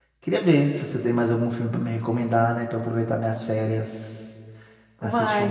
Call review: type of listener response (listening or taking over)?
taking over